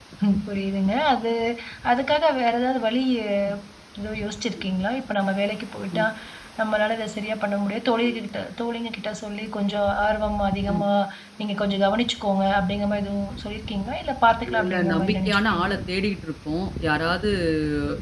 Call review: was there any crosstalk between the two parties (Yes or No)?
Yes